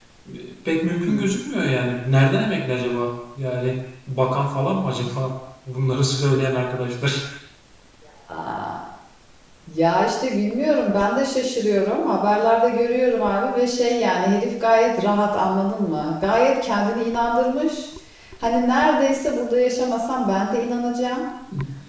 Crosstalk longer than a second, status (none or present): none